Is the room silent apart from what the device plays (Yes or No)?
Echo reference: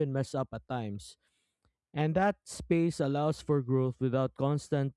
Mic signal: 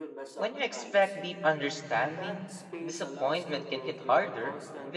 No